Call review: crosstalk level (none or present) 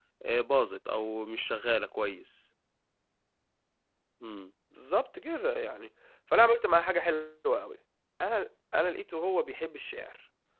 none